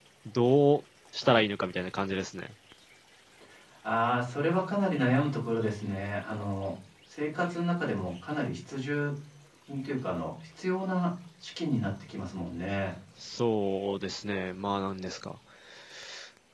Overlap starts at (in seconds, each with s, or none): none